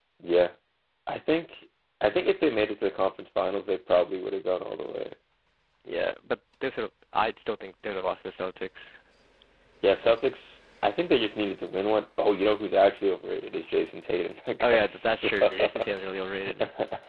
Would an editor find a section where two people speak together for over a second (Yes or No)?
Yes